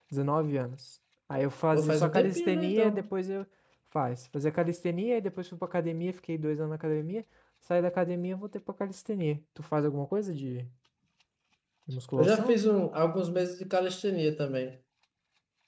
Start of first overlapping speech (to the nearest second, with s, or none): 2 s